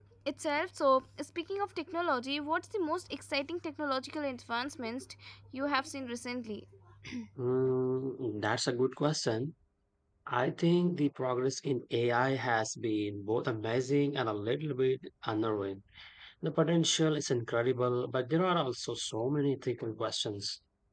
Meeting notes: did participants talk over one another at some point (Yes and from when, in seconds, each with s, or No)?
No